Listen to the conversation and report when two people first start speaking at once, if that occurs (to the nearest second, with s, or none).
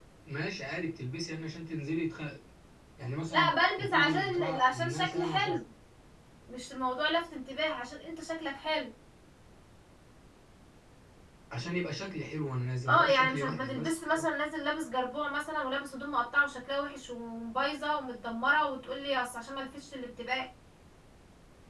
3 s